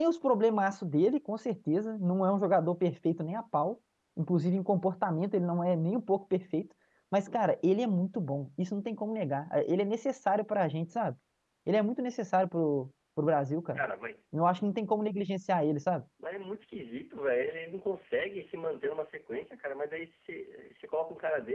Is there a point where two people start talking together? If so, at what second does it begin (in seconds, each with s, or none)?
none